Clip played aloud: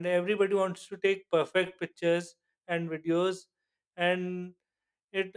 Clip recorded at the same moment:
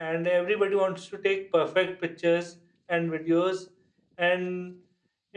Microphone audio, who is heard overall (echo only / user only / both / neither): echo only